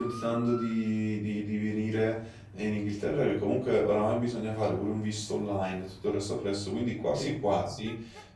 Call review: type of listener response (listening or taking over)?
listening